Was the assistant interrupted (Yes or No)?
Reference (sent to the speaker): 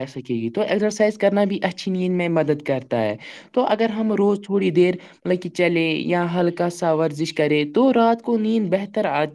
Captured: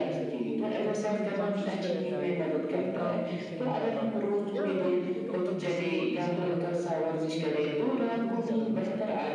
Yes